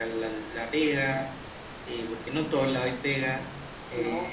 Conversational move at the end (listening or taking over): taking over